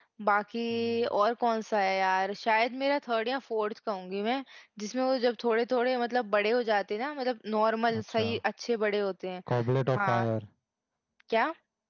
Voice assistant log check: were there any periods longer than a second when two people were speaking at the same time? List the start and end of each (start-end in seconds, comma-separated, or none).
none